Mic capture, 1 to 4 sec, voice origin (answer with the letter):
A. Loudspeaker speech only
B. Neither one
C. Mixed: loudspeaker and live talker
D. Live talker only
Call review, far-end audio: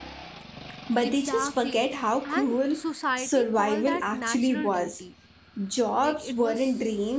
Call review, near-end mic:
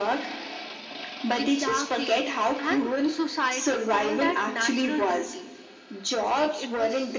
A